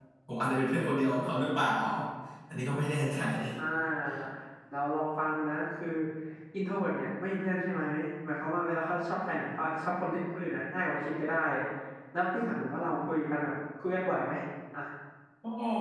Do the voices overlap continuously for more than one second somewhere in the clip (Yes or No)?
No